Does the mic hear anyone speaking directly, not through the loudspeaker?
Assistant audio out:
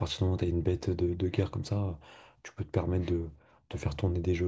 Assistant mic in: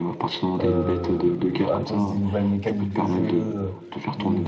Yes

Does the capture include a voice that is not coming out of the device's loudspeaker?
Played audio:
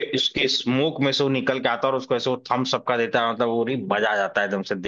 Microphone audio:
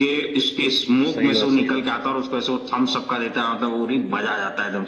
Yes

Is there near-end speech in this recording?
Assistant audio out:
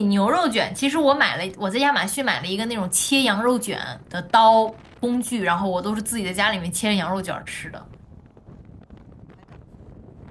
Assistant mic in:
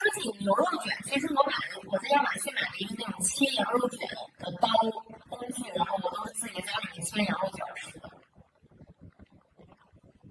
No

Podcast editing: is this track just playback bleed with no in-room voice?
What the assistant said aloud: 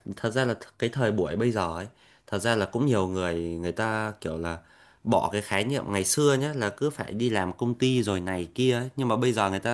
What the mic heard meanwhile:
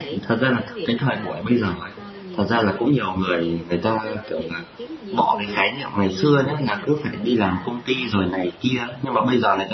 No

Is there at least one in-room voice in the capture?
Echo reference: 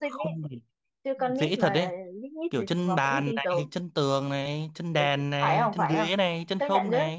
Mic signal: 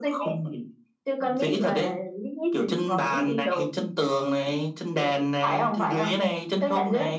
No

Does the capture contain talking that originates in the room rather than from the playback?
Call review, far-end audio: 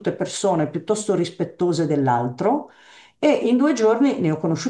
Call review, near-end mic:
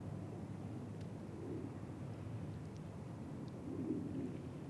No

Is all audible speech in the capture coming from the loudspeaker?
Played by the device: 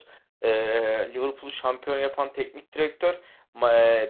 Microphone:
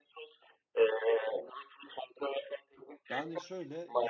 No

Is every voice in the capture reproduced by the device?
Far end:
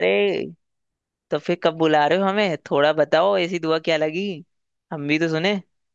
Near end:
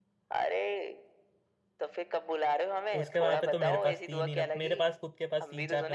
No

